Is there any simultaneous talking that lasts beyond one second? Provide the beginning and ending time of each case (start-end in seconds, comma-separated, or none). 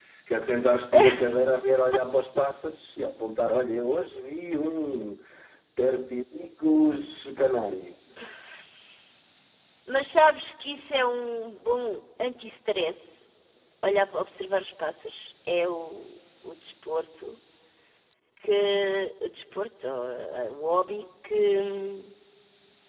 none